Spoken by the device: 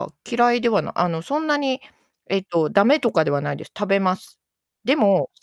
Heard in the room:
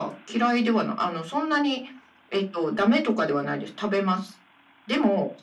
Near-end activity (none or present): none